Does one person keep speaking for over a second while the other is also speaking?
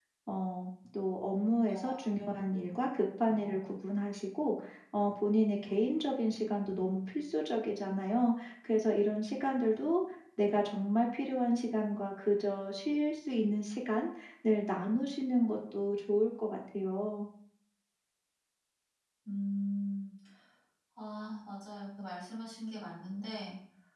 No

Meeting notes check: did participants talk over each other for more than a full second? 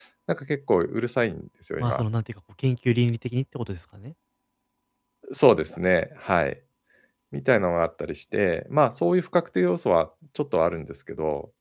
No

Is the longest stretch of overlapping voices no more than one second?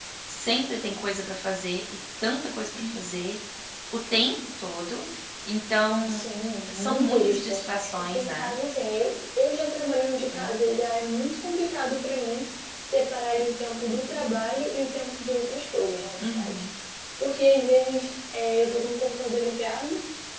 No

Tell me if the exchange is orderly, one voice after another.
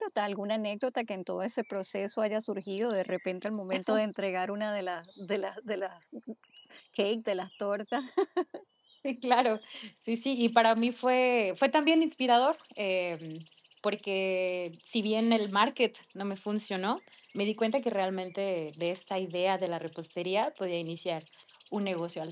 Yes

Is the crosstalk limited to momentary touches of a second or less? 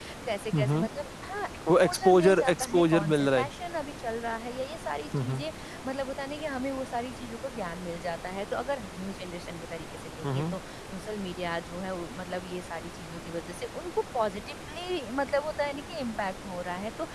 No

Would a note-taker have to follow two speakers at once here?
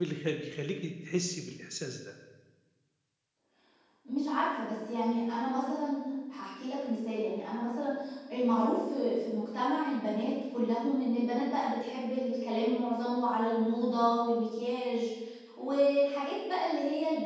No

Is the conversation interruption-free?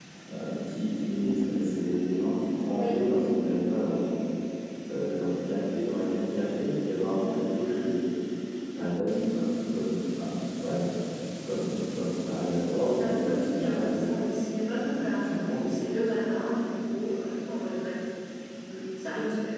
No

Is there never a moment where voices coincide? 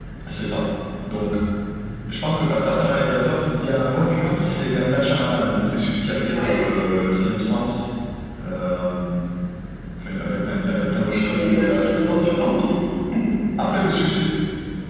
No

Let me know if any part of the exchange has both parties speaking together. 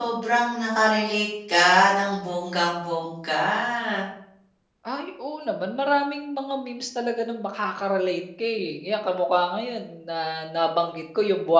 No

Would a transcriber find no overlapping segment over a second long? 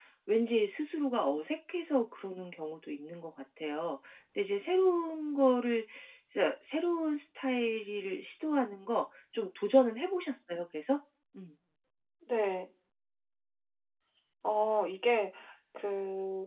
Yes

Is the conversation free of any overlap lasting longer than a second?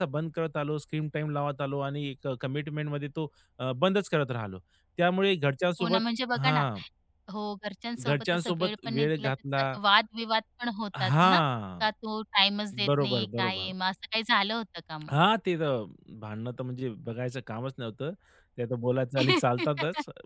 No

